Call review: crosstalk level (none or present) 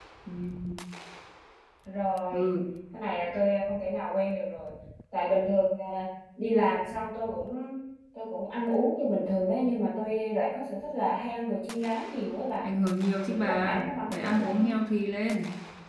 present